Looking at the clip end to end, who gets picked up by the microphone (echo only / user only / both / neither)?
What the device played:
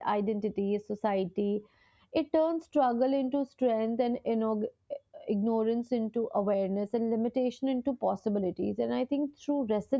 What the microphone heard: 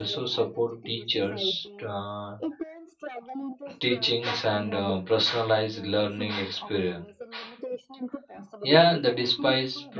both